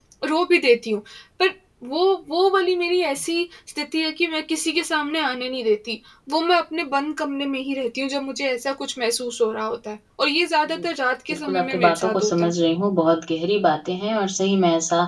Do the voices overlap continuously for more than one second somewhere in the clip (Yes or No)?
Yes